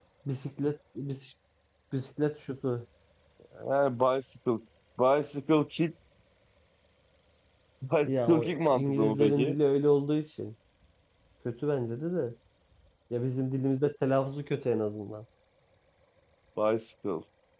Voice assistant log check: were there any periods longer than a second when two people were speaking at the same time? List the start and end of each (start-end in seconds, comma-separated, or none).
8.1-9.6